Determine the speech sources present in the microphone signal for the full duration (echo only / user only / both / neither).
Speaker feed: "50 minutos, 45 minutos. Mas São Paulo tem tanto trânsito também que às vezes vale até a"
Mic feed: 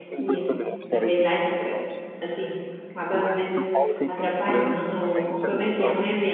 both